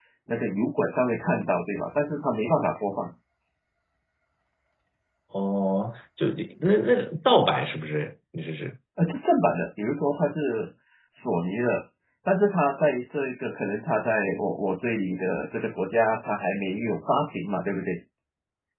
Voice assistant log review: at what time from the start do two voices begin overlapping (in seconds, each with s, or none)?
none